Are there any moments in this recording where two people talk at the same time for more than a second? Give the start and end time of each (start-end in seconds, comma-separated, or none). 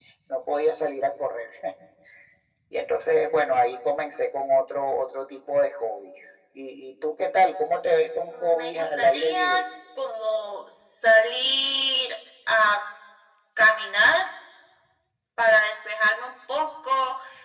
8.3-9.6